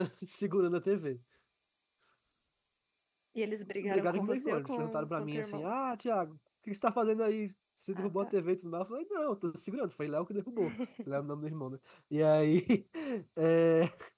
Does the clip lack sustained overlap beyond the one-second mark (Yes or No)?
No